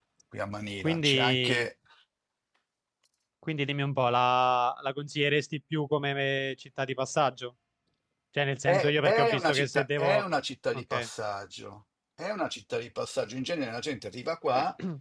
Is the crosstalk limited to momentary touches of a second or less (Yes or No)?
No